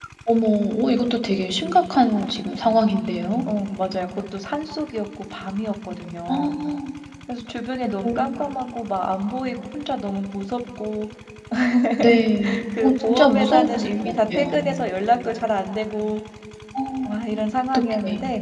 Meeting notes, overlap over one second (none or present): present